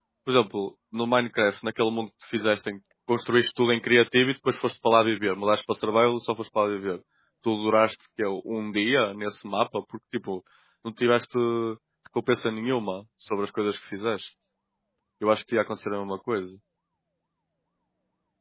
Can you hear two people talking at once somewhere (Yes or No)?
No